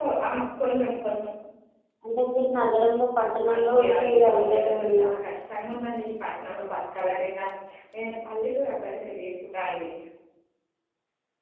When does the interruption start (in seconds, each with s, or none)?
3.4 s